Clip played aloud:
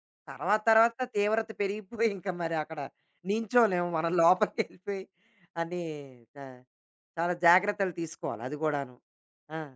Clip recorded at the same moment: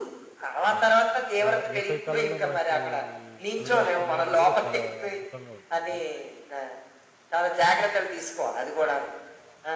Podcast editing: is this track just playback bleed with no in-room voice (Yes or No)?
No